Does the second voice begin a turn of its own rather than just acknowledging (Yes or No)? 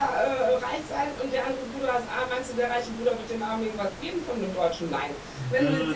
No